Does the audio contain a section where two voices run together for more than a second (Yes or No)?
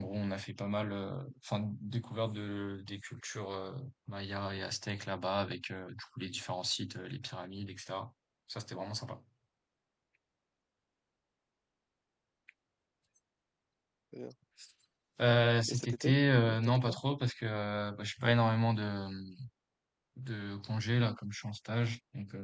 Yes